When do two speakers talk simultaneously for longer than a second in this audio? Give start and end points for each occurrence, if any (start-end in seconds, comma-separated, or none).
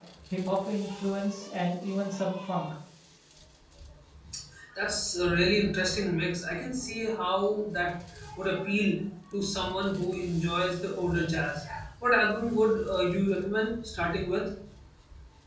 none